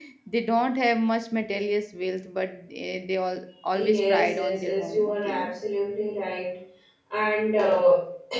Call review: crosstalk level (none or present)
present